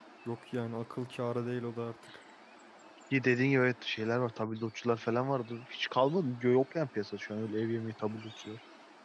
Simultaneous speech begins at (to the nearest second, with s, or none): none